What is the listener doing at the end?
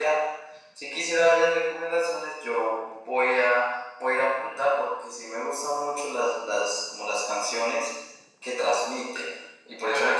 listening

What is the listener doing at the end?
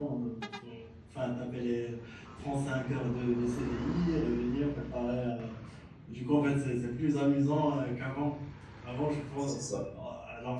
listening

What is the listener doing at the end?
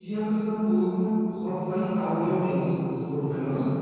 taking over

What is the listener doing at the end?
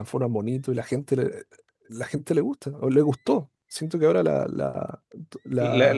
taking over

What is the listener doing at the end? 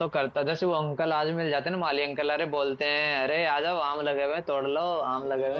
listening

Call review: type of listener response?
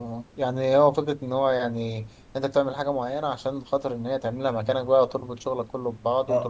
taking over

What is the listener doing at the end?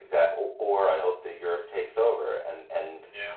listening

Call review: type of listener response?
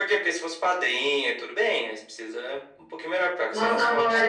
taking over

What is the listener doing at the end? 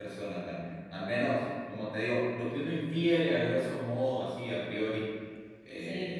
listening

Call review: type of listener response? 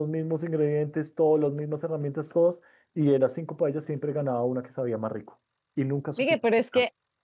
taking over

